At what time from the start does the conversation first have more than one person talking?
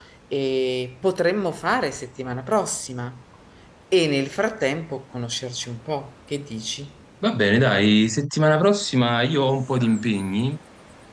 none

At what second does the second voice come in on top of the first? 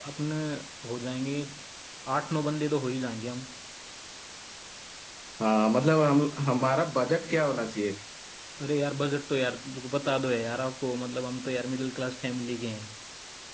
none

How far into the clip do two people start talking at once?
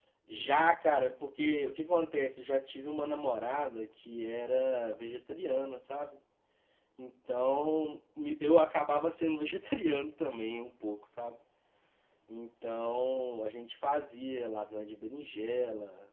none

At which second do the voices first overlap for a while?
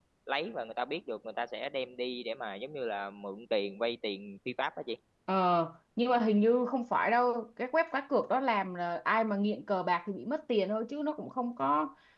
none

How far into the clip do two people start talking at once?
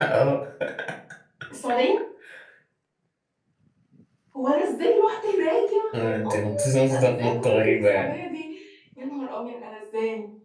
5.9 s

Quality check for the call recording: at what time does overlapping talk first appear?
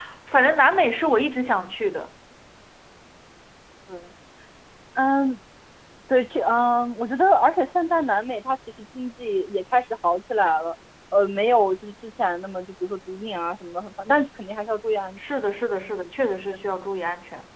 none

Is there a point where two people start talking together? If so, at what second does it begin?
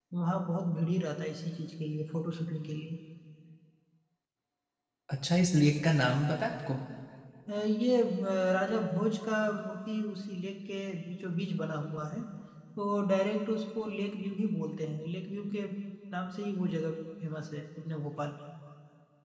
none

